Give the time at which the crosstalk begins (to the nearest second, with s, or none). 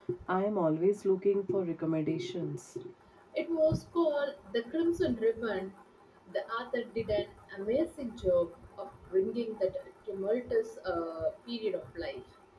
none